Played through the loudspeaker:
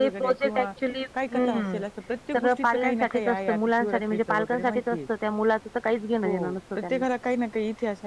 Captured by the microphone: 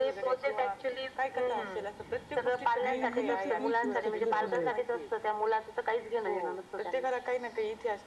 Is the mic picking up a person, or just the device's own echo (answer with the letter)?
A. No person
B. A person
B